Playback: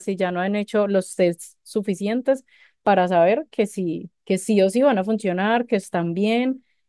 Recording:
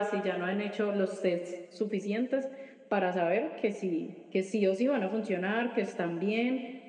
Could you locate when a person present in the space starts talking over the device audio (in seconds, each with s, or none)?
none